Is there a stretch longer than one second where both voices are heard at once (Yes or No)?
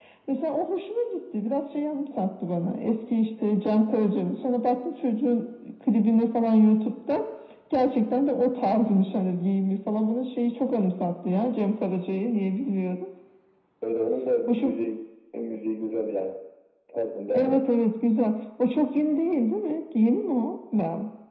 No